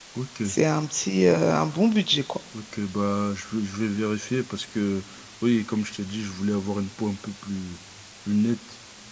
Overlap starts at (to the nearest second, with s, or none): none